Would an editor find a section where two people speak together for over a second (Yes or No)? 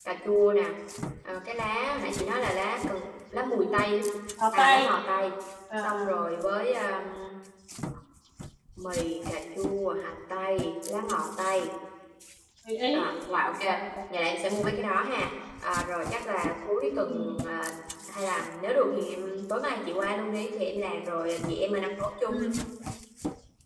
No